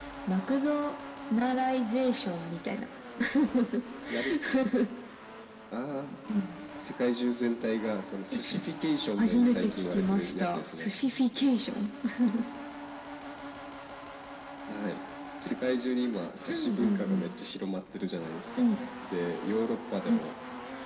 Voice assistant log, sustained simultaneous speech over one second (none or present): present